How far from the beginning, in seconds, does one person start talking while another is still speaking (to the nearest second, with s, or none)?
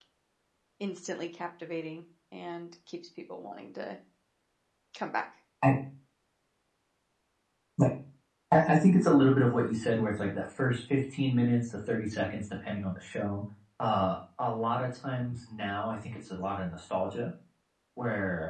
none